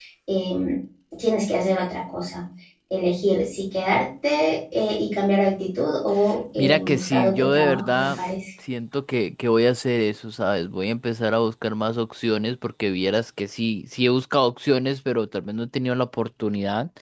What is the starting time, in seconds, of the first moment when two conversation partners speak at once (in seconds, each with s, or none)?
6.6 s